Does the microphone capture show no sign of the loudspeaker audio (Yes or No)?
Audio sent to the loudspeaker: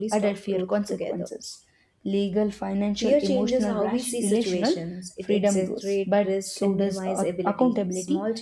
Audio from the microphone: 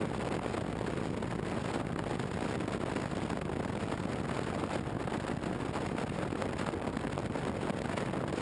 Yes